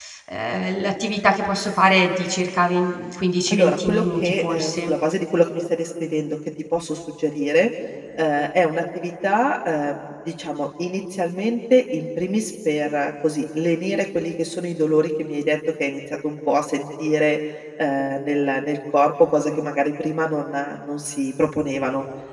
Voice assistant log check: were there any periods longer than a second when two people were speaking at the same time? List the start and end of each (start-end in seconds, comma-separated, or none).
3.5-5.0